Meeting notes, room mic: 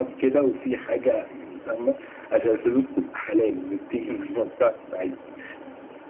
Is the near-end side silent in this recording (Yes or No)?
Yes